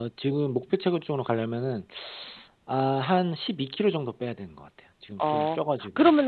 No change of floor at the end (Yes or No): No